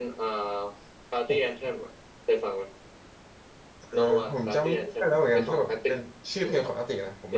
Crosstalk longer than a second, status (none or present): present